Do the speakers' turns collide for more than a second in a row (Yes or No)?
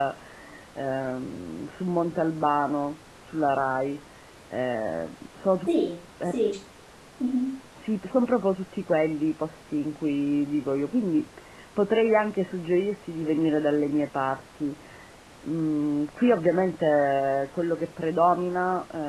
No